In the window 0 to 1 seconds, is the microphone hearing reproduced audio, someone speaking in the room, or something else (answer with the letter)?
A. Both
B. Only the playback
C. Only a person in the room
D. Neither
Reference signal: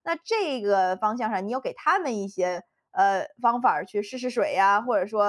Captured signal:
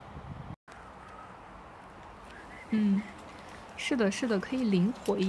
D